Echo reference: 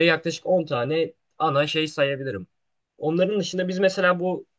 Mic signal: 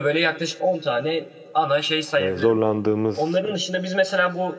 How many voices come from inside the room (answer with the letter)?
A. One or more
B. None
A